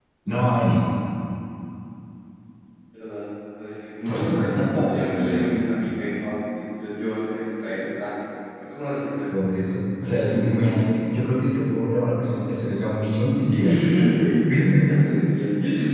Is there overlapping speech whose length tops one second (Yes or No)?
Yes